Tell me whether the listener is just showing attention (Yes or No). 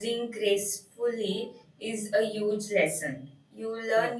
Yes